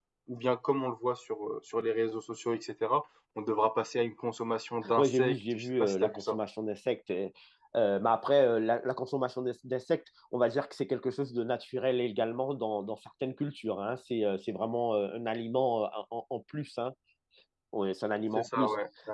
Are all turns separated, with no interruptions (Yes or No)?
No